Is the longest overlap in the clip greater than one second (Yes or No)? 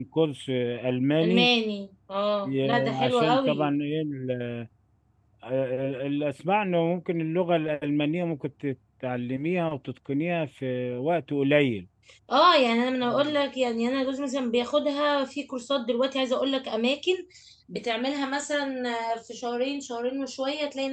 Yes